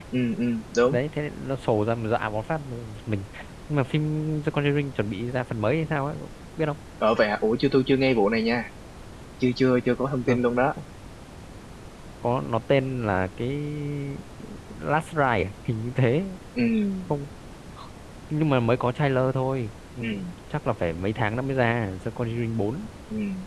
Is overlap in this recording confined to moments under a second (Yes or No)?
Yes